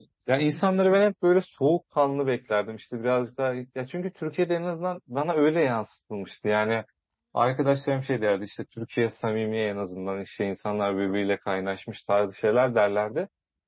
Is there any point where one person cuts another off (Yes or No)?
No